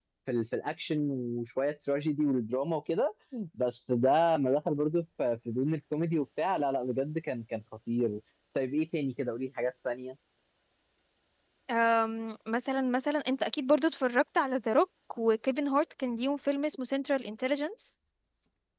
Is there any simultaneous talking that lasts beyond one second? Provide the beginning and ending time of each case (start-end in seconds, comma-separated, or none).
none